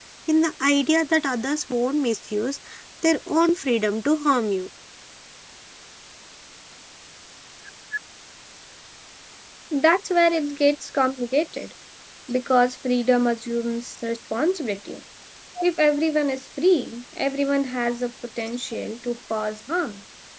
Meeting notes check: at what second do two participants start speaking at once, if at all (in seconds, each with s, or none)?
none